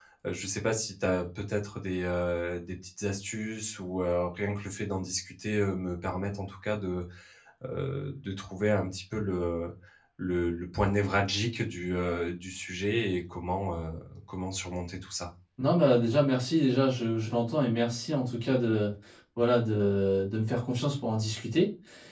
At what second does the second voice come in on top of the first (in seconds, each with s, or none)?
none